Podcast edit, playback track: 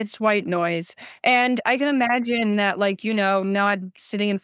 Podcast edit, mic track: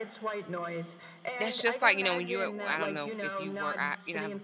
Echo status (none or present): present